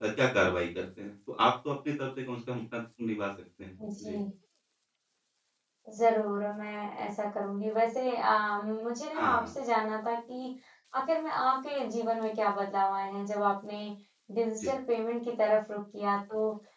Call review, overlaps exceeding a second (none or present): none